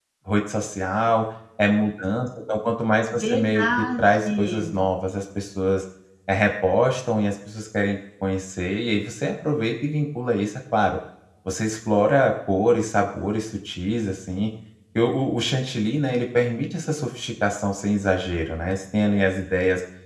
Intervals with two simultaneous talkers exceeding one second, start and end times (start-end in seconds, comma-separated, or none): 3.1-4.8